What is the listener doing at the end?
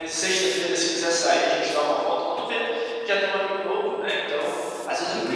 listening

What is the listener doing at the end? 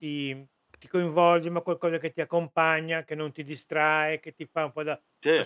listening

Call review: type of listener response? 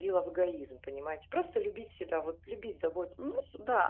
taking over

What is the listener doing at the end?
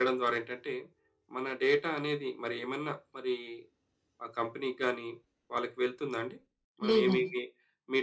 listening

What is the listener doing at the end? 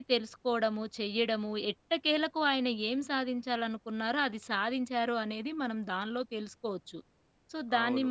taking over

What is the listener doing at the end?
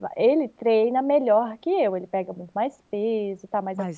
listening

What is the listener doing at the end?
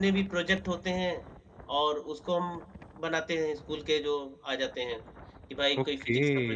taking over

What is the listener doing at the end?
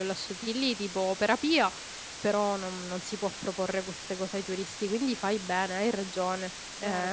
taking over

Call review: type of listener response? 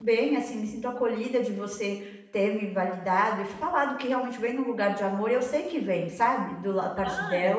taking over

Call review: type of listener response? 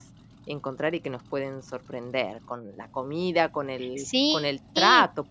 listening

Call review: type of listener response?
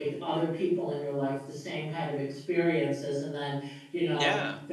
listening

